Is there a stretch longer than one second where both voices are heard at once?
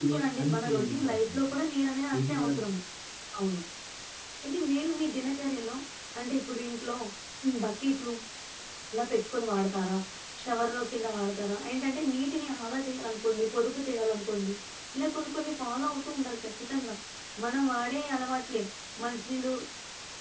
Yes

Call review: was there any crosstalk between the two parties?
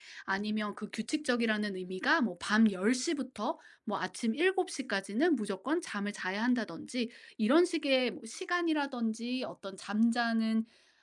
No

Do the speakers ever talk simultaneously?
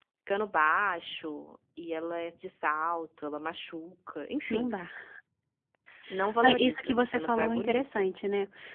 Yes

